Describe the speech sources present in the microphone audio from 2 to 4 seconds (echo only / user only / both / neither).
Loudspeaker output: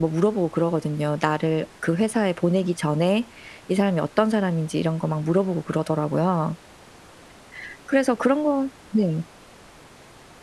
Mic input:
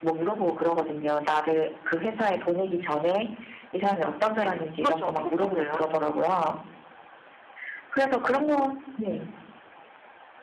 echo only